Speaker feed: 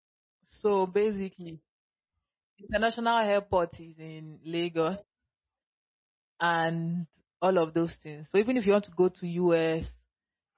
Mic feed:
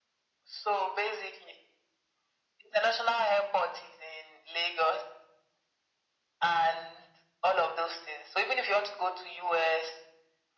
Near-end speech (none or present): none